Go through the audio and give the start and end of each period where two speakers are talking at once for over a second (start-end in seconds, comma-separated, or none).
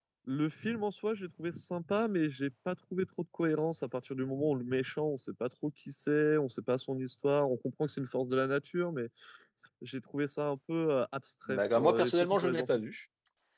11.5-12.7